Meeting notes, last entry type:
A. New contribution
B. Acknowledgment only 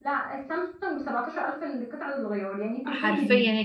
A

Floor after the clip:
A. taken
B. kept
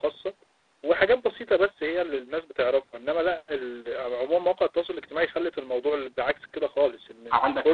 A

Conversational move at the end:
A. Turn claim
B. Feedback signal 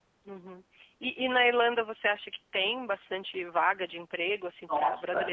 B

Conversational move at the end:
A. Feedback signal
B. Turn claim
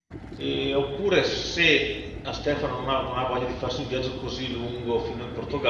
A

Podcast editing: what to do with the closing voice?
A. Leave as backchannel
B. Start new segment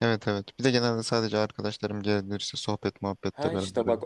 B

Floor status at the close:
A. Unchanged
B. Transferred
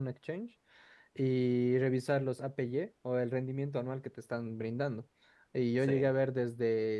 A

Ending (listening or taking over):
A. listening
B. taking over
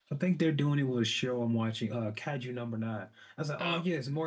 A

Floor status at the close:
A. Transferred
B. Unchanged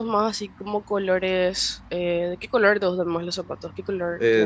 A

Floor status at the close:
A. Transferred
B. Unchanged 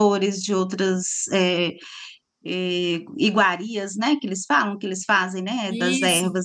A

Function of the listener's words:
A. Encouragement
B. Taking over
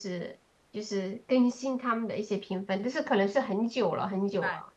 B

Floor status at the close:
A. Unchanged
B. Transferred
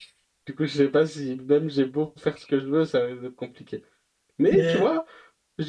A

